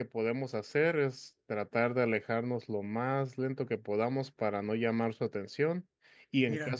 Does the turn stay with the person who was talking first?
Yes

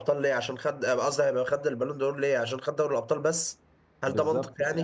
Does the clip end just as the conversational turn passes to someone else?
Yes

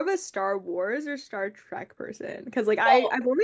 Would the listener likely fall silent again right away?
Yes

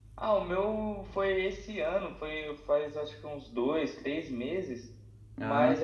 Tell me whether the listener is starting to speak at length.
No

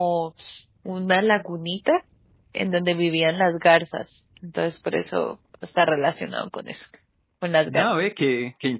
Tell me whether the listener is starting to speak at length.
Yes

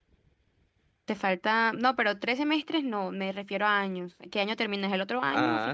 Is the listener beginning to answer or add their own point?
Yes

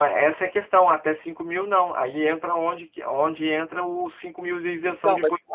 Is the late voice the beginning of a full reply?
Yes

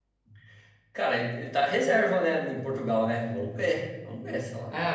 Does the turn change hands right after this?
Yes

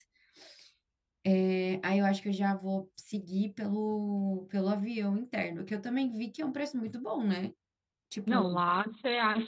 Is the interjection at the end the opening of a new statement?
Yes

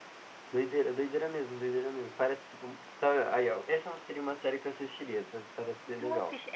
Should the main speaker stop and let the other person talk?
Yes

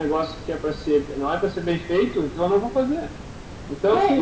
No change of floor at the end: Yes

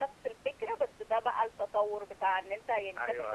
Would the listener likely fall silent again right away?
Yes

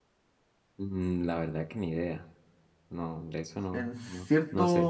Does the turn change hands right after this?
Yes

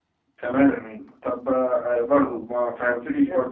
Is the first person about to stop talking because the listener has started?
No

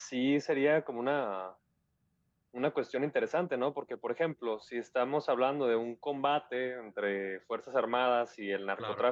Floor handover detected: No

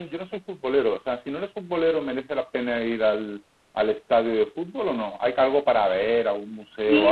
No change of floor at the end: No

